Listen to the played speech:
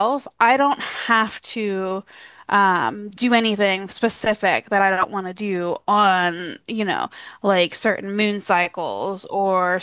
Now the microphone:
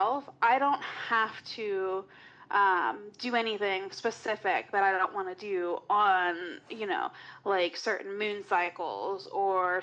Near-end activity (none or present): none